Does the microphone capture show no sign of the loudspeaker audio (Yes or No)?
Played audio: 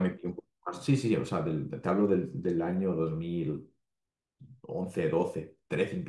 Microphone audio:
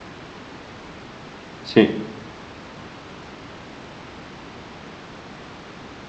Yes